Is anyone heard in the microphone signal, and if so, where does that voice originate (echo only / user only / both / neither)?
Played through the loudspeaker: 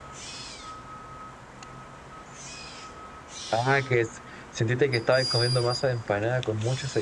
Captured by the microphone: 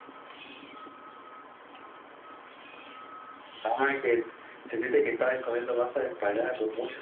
echo only